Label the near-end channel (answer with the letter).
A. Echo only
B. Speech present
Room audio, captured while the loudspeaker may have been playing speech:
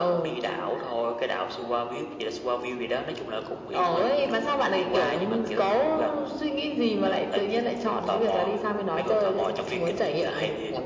A